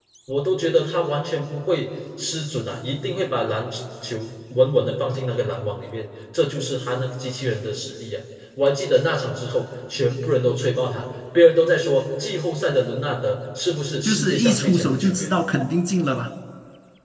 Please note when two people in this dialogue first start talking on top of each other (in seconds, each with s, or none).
14.0 s